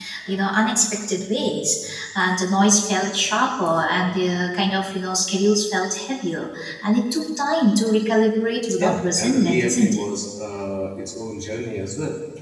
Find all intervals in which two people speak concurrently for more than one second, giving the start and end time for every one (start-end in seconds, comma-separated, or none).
8.8-10.0